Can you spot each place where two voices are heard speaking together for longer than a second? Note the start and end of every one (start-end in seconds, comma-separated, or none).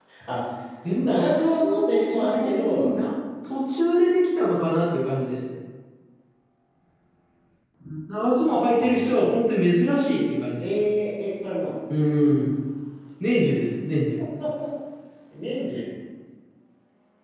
1.0-2.9